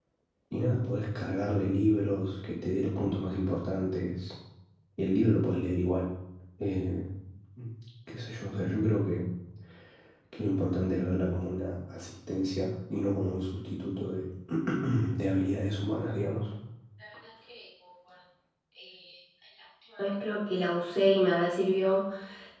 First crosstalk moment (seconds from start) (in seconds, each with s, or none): none